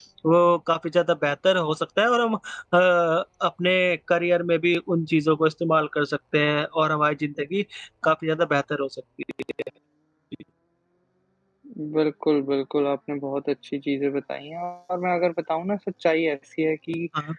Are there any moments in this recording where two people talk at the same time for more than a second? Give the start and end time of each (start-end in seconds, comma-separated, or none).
none